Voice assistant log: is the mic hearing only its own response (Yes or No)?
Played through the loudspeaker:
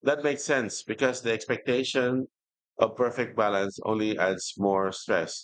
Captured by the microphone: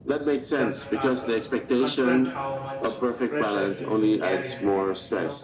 No